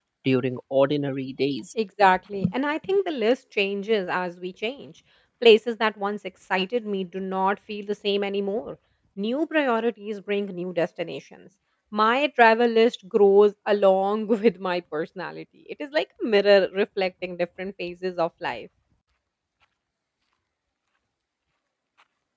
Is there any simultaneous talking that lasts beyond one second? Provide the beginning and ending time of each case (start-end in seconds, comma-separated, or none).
none